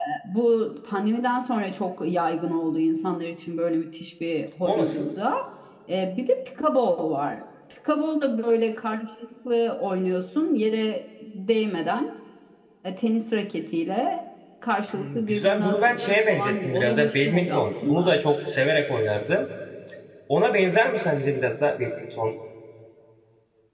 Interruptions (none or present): present